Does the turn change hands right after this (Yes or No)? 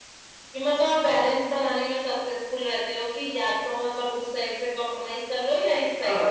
Yes